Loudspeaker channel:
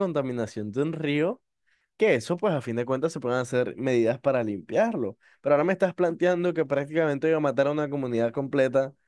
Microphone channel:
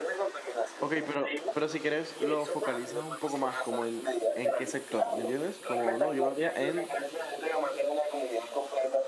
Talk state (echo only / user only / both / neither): both